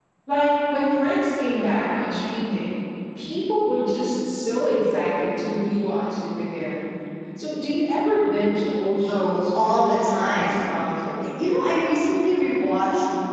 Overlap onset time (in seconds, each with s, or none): 9.1 s